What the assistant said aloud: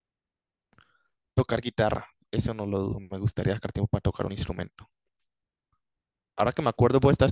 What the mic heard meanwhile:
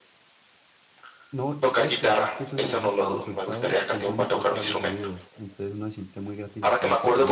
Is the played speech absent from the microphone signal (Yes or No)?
No